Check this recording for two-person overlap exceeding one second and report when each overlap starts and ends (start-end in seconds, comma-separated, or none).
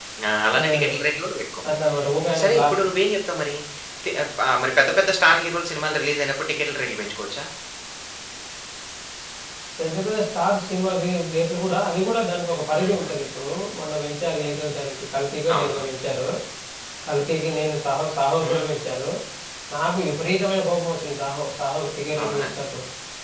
none